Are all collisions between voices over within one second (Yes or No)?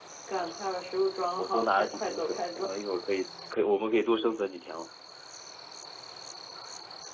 No